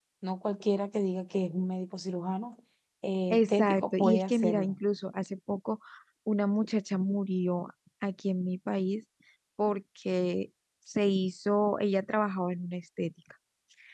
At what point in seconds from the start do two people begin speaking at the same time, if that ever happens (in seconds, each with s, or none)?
3.3 s